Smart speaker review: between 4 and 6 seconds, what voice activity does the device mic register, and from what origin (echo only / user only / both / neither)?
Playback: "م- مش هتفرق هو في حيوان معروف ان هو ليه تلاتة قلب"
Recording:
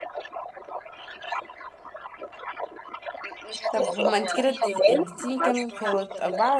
both